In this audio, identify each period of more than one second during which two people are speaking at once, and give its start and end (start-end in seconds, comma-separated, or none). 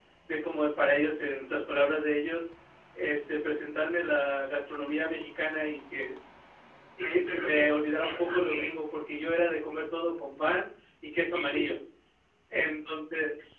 7.0-8.7